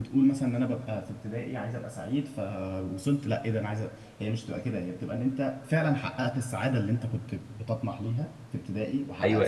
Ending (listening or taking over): taking over